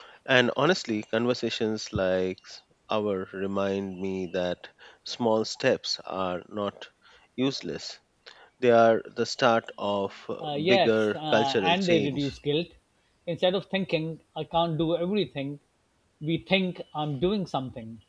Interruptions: present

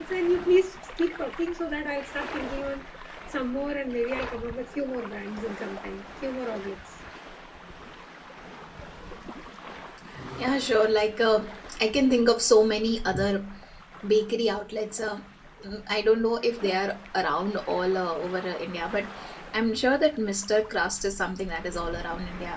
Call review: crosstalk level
none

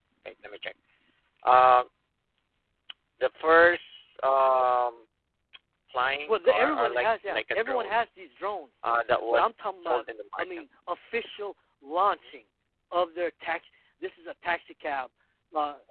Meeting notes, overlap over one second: present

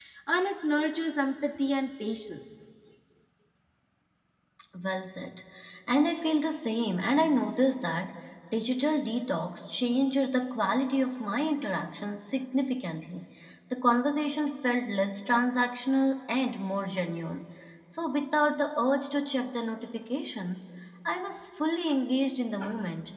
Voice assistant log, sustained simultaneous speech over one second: none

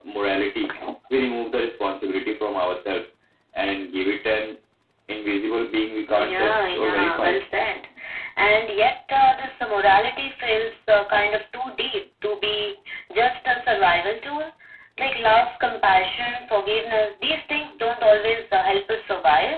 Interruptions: present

